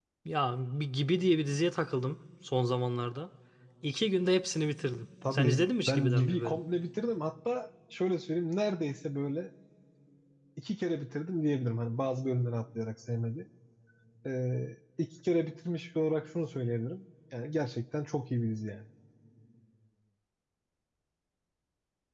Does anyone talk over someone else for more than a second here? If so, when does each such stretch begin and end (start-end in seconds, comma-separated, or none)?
5.3-6.6